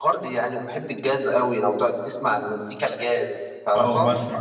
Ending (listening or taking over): taking over